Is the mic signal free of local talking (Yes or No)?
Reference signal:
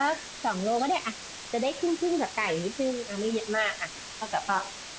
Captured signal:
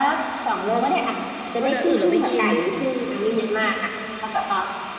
No